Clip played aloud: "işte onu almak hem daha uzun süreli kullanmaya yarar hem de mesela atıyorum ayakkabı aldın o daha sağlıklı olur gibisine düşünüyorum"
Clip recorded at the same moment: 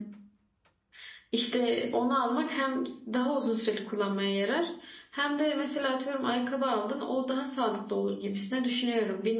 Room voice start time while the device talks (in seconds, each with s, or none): none